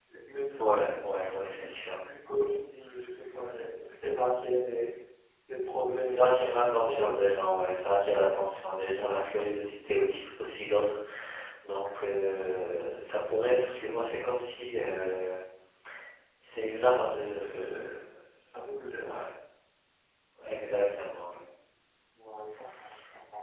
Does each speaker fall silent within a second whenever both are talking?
No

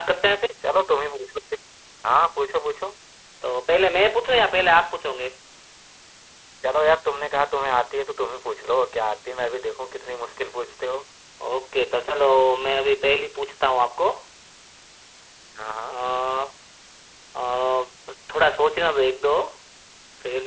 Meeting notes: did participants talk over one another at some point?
No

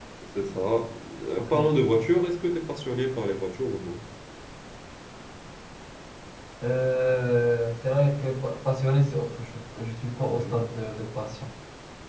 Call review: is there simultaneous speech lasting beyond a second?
No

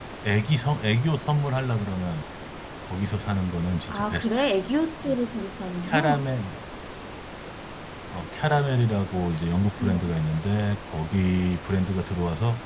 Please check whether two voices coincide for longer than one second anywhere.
No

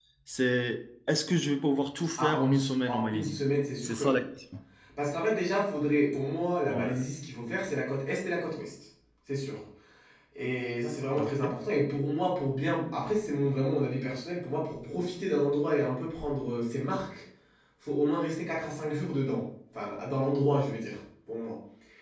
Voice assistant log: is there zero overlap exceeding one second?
No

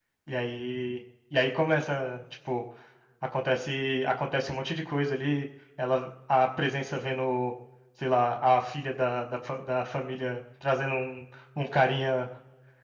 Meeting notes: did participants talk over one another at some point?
No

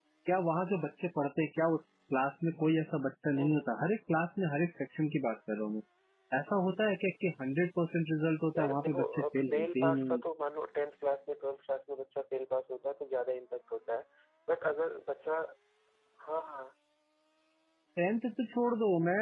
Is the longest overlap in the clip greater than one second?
Yes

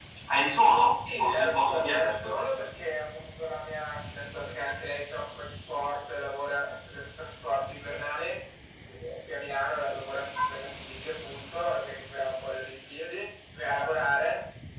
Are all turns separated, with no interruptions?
No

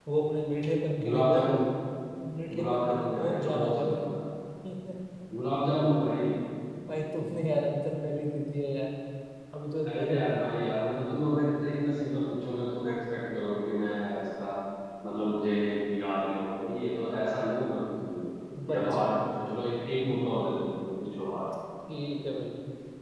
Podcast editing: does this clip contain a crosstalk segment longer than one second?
Yes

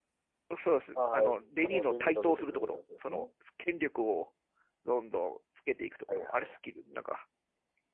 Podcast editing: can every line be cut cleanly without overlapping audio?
No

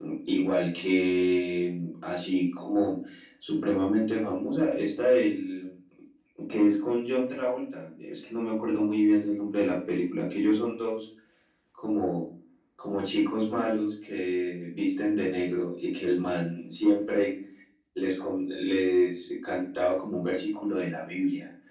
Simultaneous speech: No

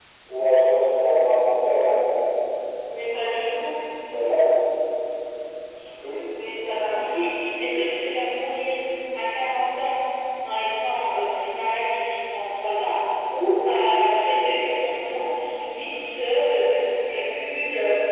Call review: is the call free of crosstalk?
Yes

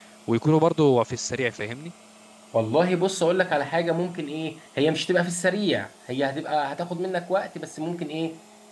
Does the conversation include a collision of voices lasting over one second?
No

